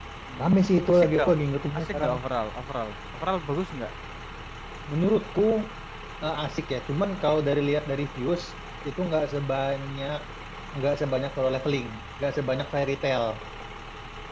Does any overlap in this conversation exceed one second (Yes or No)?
No